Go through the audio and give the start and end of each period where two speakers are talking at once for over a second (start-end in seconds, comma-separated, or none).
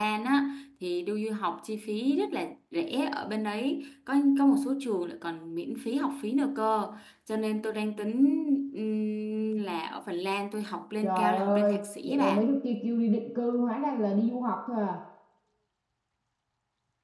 11.0-12.4